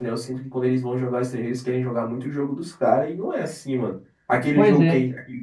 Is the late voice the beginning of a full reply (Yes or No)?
No